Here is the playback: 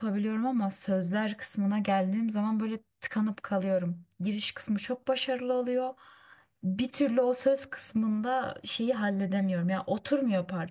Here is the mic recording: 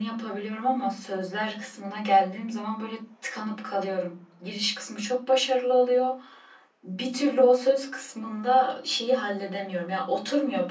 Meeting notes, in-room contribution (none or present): none